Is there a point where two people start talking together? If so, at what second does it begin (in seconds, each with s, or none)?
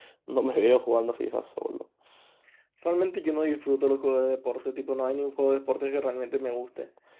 none